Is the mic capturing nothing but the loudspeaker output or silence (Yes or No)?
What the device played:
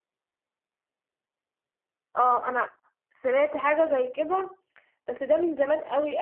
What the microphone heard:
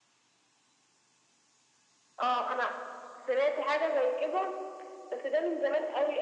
Yes